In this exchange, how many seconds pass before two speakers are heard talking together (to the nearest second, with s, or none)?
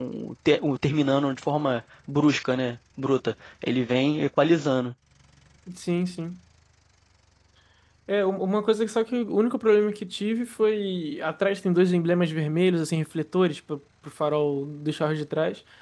none